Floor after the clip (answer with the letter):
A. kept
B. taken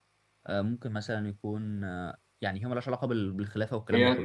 B